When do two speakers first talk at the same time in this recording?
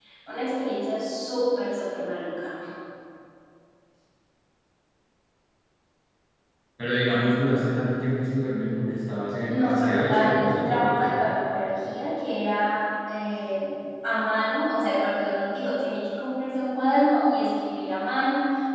9.5 s

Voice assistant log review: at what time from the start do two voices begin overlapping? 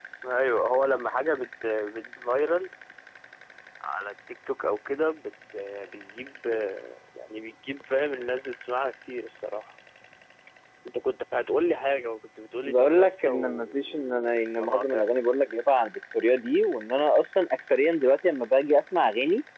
12.6 s

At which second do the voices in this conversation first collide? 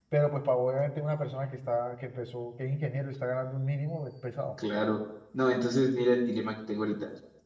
none

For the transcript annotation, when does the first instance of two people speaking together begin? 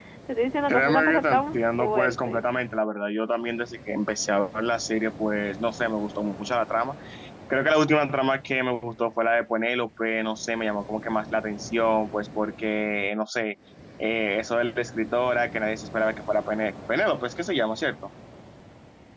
0.7 s

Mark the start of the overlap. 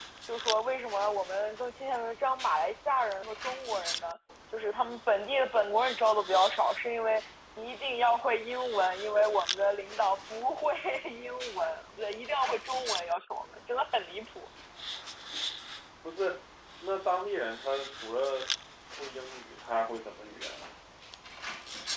none

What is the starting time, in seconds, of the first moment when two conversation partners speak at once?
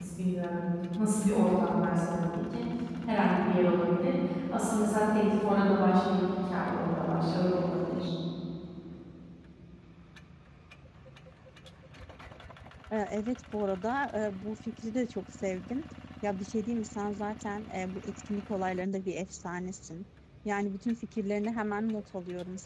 none

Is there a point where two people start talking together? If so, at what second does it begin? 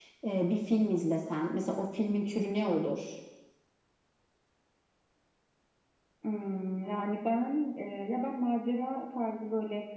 none

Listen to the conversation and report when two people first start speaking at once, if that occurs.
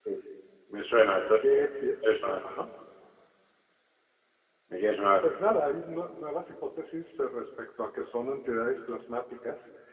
none

